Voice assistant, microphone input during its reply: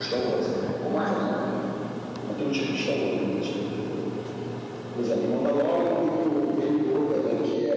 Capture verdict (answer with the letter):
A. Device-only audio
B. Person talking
B